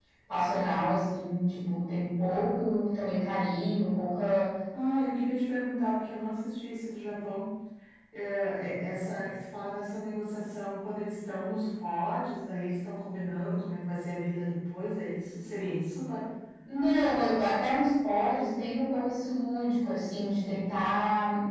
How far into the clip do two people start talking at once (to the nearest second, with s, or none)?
none